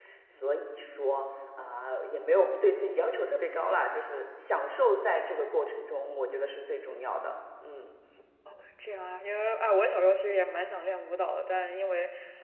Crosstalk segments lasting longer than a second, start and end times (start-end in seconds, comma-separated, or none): none